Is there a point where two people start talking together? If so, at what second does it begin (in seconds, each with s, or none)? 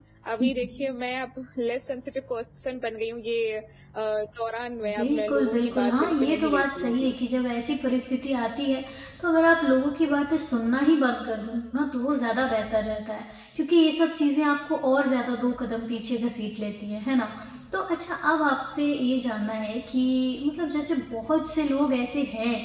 4.8 s